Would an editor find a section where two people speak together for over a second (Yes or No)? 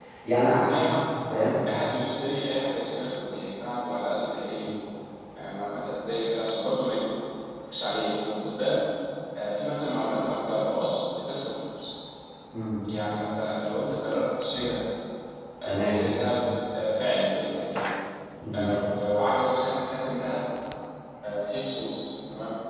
No